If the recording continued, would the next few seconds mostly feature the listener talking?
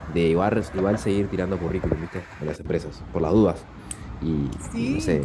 No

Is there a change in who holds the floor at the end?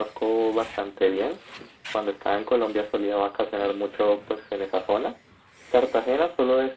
No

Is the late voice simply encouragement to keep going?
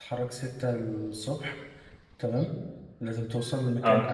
Yes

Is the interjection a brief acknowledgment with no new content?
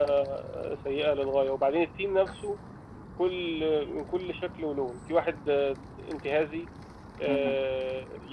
Yes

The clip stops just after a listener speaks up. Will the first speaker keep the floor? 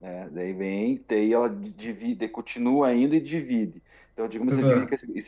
Yes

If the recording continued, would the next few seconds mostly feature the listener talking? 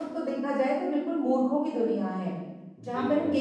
No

